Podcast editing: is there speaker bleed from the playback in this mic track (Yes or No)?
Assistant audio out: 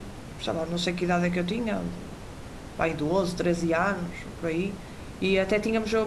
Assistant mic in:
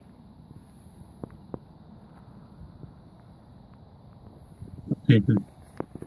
No